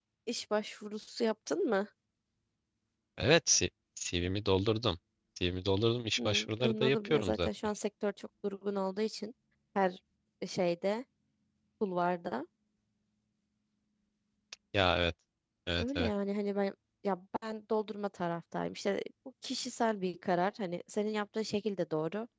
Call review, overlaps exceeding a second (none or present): present